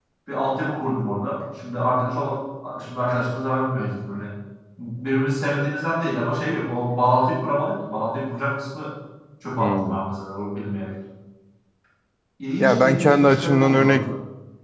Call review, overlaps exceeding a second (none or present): present